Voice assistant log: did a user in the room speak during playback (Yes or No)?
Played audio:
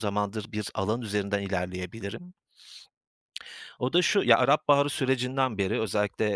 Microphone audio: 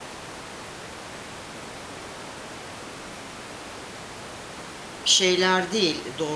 Yes